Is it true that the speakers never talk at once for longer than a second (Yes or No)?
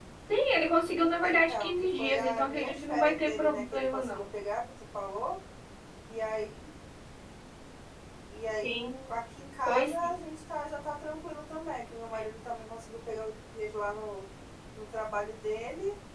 No